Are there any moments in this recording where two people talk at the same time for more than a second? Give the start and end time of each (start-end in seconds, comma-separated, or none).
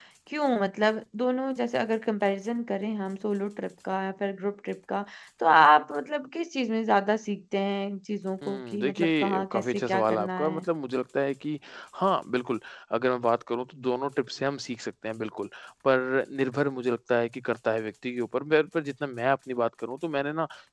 8.5-10.6